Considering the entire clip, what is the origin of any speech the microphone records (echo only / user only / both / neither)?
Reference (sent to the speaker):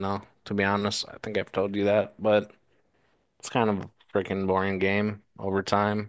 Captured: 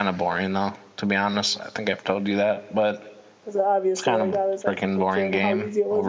both